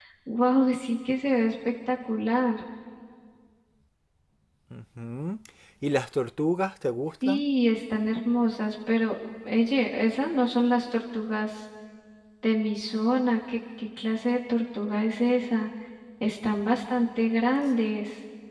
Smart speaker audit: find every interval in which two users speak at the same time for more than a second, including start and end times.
none

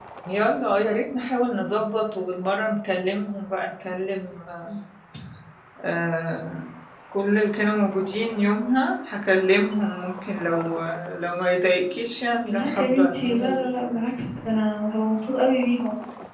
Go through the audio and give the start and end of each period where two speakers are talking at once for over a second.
12.5-13.8

